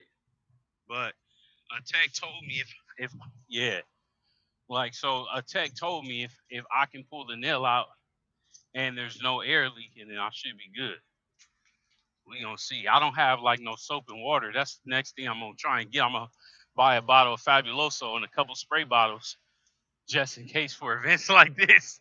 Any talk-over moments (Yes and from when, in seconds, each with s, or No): No